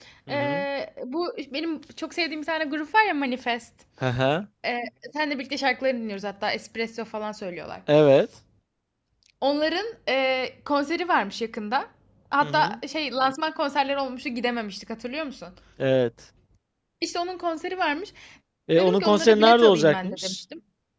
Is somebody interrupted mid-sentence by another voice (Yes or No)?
Yes